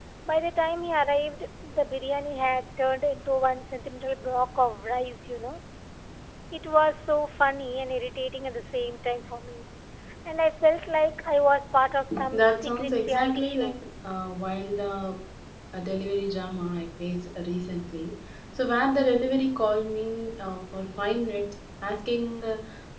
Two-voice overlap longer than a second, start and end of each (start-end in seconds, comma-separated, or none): 12.3-13.7